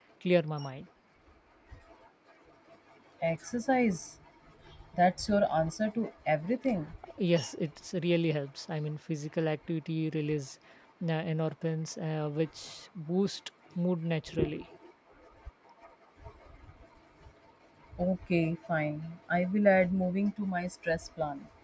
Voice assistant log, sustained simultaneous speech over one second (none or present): none